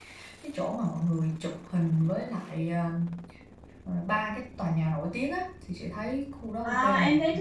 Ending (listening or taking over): taking over